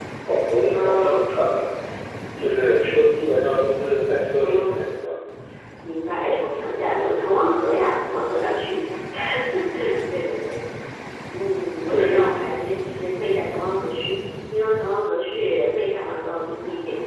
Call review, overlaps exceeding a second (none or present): none